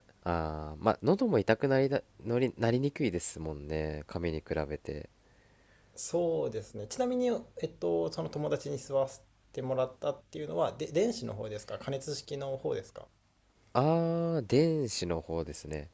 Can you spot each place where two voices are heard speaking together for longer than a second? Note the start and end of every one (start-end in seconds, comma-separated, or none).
none